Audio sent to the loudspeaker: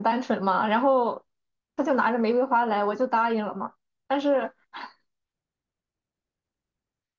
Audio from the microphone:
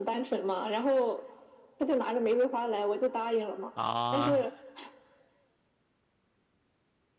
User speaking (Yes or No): Yes